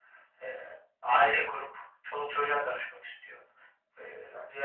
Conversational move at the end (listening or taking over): listening